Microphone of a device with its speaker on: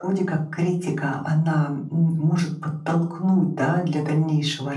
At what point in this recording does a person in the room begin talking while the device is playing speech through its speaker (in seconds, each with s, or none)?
none